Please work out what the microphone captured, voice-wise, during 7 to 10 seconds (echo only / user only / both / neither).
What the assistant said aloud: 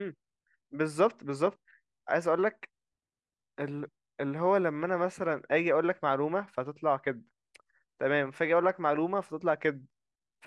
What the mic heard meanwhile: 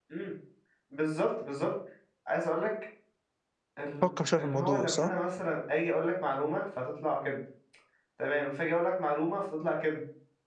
echo only